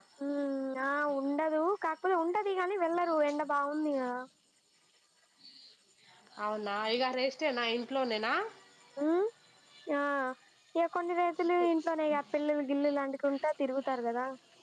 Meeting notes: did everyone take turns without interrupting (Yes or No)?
Yes